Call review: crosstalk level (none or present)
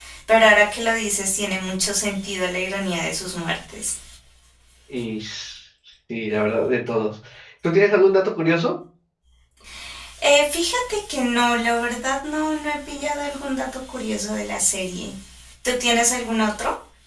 none